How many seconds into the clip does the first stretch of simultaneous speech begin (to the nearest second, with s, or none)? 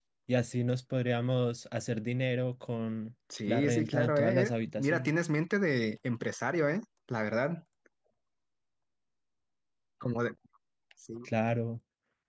3 s